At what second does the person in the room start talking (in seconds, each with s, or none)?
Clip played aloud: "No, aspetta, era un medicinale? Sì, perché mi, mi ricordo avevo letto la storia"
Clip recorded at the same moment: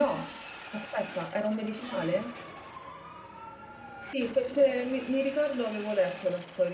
none